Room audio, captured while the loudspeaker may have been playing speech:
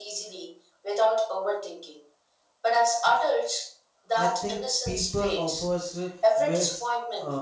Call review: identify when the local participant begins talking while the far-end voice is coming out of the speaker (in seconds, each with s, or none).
4.2 s